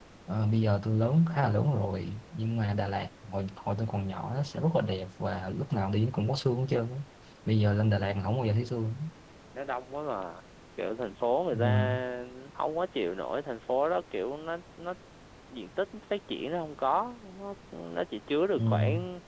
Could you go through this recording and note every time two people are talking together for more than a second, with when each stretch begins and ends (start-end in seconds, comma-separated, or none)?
none